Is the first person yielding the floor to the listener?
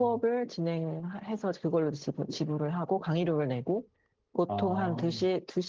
No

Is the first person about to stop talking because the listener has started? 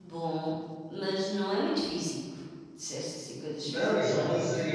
Yes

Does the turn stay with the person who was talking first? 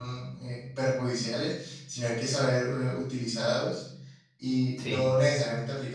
Yes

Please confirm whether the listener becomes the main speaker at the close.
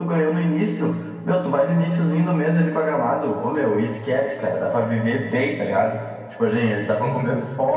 No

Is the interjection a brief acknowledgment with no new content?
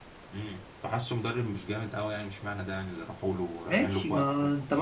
No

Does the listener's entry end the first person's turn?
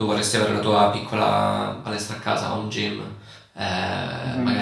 No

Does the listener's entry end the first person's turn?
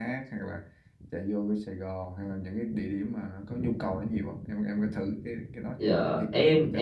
Yes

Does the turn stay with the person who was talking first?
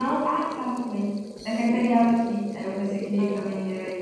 No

